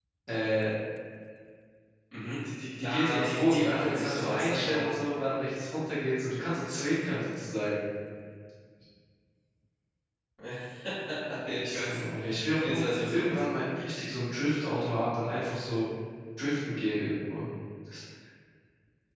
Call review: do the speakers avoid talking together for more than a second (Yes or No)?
No